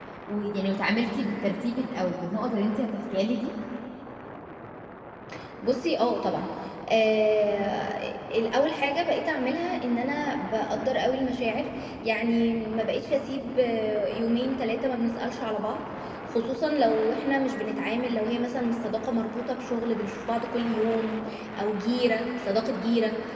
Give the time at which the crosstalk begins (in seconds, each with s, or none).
none